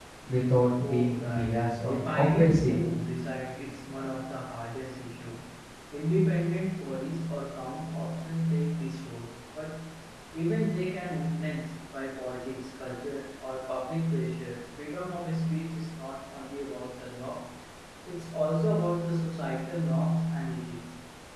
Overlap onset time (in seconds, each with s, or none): 0.8 s